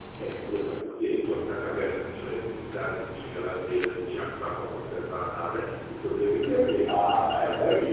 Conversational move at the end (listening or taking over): taking over